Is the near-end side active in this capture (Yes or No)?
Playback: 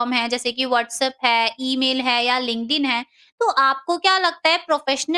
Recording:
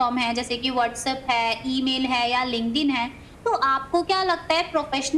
No